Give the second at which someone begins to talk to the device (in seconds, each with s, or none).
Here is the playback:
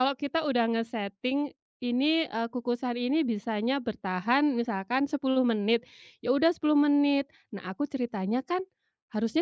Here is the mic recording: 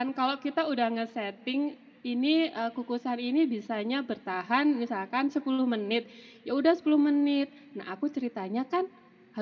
none